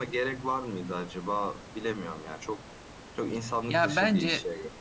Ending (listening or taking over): taking over